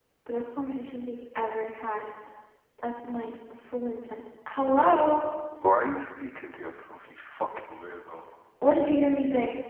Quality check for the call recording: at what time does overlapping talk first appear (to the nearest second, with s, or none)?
none